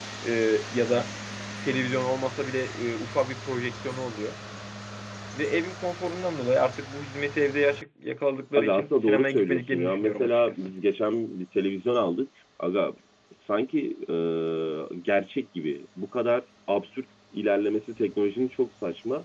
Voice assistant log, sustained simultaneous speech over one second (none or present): present